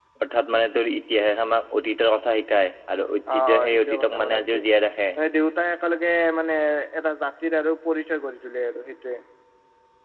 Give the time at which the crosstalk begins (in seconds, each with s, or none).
3.3 s